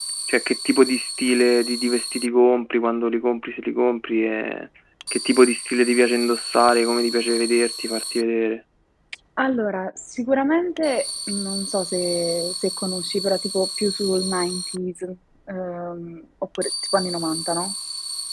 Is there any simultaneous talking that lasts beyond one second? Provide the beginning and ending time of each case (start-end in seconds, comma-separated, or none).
none